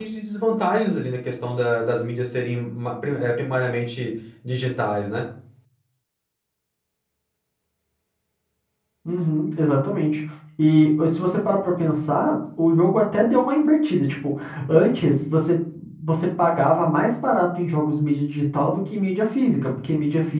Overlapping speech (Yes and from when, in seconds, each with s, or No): No